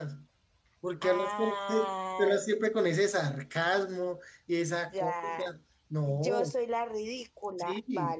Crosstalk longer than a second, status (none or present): present